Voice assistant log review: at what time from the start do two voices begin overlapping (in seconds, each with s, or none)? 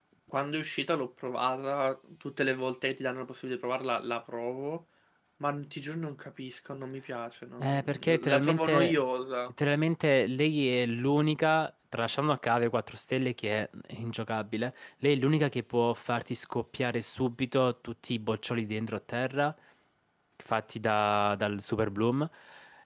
7.6 s